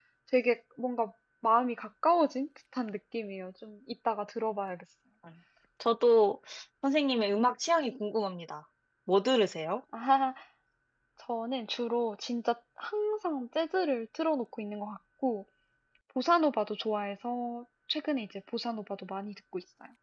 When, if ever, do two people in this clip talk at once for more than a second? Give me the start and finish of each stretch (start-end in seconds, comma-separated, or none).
none